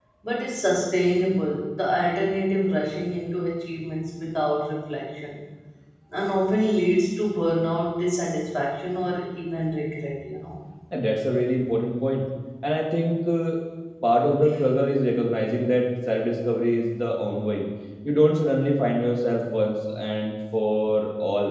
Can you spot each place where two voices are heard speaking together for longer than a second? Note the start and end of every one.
none

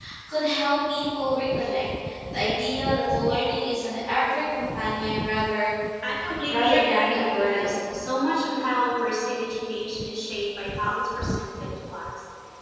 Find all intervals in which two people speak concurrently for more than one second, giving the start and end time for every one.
6.4-7.8

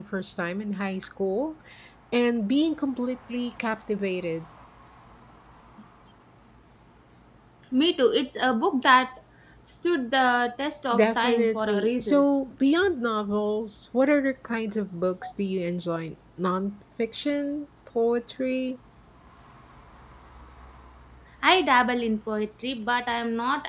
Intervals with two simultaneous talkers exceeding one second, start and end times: 10.9-12.2

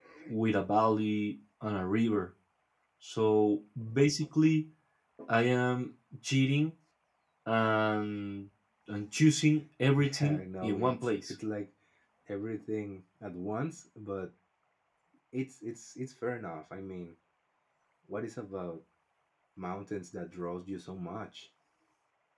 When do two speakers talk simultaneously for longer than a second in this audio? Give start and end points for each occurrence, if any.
10.0-11.3

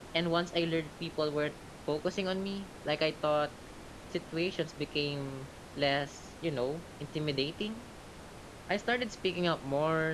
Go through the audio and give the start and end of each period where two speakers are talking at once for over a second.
none

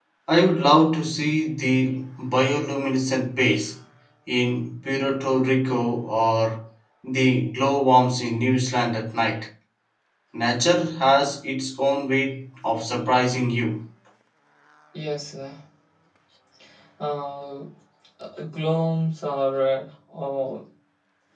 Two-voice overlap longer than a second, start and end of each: none

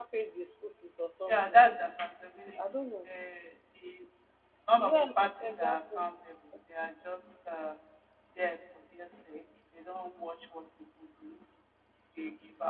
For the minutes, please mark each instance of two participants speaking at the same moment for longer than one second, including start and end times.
4.8-6.0

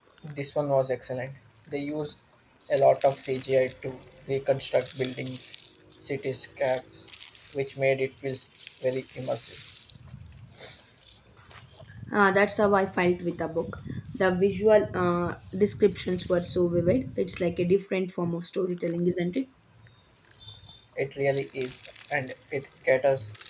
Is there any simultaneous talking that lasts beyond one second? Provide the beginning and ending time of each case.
none

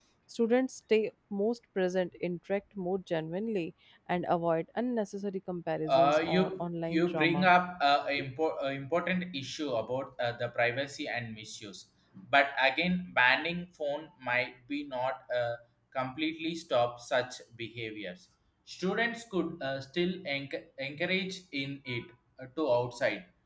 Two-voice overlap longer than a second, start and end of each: 5.9-7.5

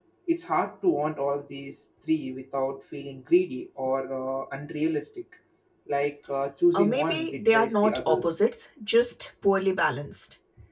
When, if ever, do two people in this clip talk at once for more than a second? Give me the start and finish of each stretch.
6.7-8.4

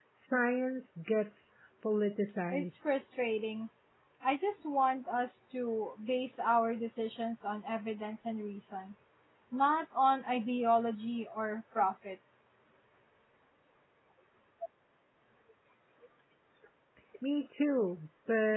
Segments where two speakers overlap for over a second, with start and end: none

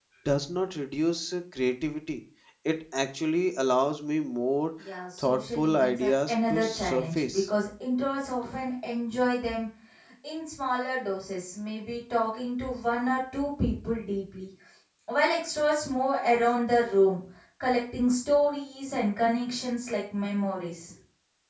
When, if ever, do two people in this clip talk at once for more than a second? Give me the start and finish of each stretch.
5.2-7.5

